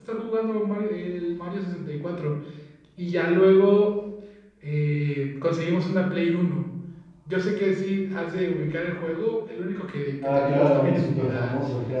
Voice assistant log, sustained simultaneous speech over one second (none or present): present